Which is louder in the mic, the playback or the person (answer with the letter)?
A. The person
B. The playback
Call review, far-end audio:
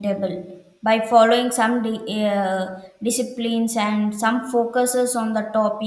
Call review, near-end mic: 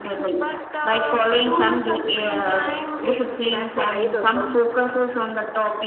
B